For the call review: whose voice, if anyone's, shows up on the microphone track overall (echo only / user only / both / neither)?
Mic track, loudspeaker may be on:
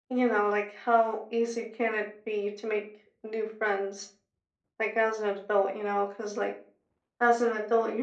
echo only